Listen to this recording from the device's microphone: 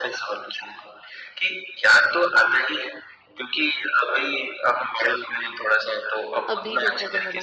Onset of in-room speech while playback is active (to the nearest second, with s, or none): 6 s